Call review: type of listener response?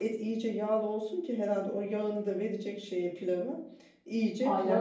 listening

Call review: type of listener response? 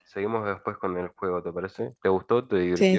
taking over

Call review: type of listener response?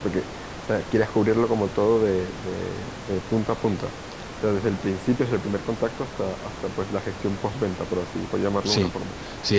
taking over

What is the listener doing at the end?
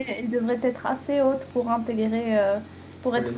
listening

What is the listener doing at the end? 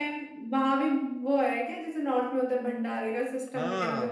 taking over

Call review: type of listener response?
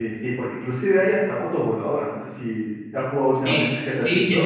taking over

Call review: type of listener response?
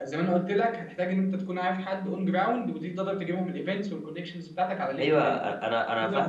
taking over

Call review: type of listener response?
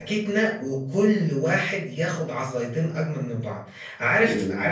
listening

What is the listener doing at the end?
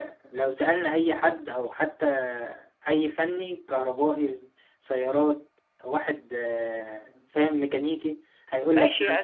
taking over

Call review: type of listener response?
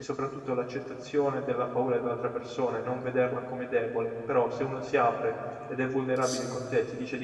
listening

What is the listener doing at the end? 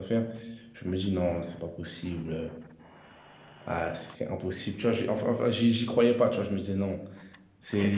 taking over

